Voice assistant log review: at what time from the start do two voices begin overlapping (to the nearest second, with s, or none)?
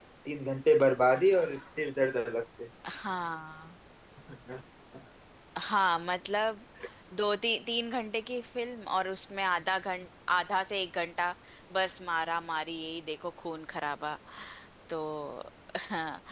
none